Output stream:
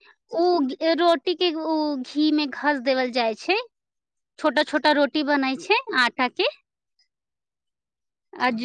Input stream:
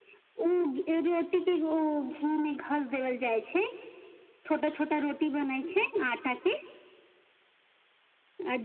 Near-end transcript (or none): none